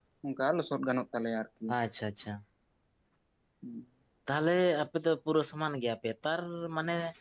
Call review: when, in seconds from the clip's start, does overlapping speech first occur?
none

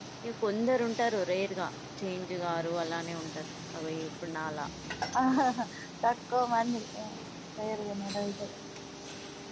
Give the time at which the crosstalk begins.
none

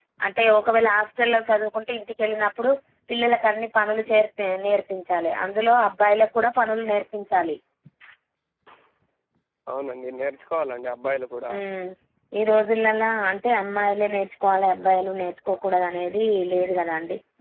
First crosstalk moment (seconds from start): none

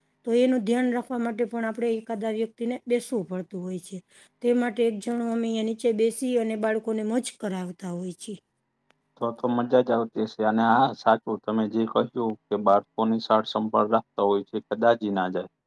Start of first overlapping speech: none

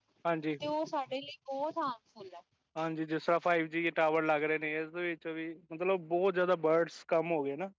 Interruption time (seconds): none

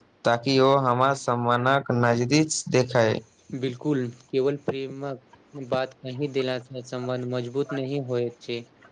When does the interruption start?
none

